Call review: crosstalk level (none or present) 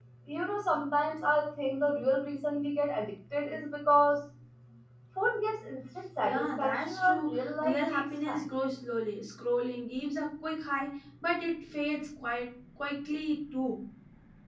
present